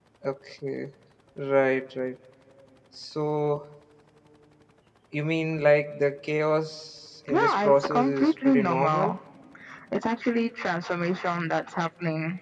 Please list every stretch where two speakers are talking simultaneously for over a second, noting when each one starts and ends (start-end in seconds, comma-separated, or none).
7.3-9.2